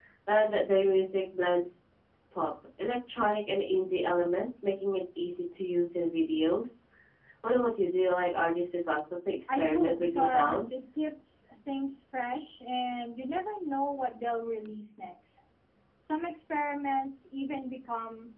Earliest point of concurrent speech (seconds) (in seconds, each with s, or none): 9.5 s